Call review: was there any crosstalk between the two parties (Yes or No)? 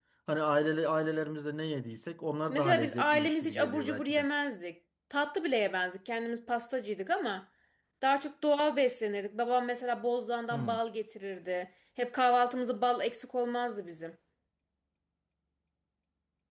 Yes